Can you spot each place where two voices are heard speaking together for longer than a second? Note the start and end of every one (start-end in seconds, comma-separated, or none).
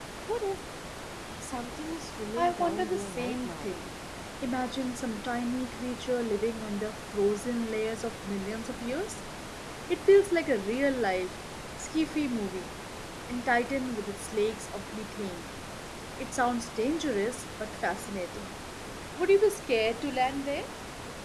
2.4-3.7